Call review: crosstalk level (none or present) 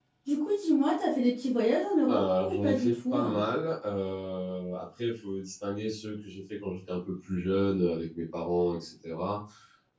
present